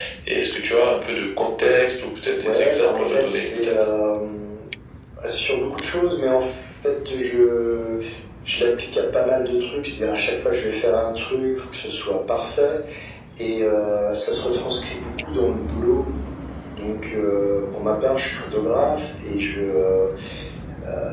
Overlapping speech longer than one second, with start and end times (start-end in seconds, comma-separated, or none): 2.4-3.8